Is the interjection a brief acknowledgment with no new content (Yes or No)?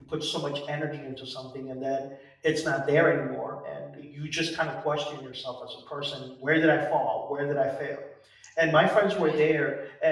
Yes